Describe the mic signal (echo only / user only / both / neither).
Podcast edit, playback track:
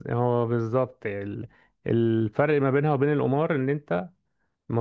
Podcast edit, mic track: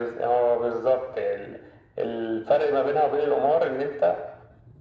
echo only